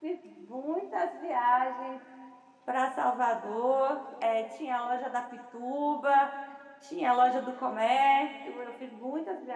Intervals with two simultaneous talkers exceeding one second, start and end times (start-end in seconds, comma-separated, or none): none